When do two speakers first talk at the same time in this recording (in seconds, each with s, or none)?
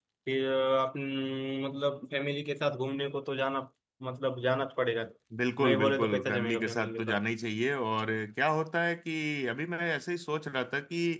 5.6 s